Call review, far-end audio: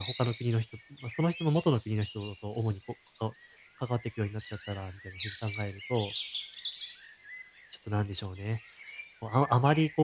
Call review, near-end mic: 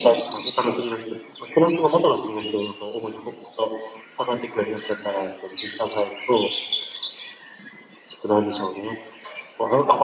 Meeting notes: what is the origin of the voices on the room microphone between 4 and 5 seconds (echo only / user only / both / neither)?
echo only